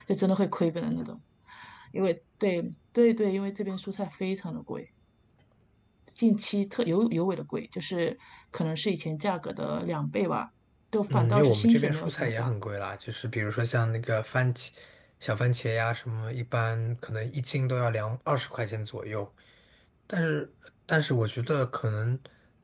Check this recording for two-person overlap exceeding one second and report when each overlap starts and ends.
11.1-12.5

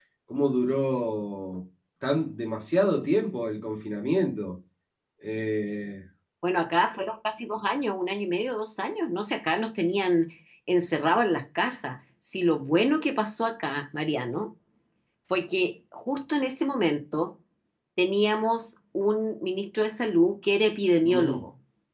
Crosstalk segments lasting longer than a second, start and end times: none

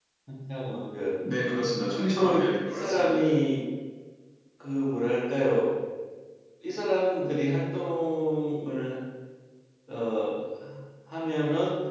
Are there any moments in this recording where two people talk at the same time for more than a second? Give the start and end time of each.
1.9-3.3

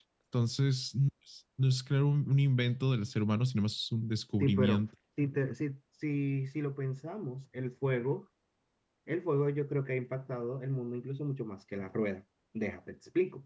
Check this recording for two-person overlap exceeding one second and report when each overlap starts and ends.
none

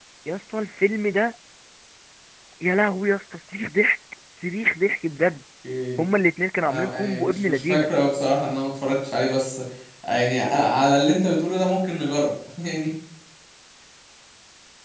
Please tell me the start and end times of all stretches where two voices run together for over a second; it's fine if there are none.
6.6-7.9

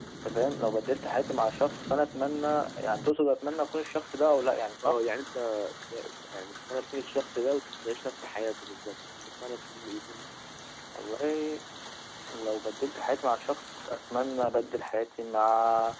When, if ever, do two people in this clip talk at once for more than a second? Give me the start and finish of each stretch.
none

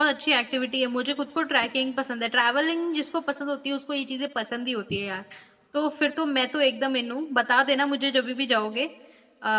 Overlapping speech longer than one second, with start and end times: none

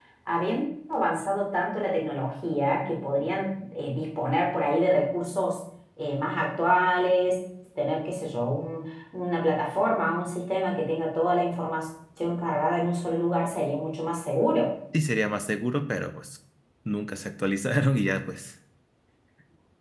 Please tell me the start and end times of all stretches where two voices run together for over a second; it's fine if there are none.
none

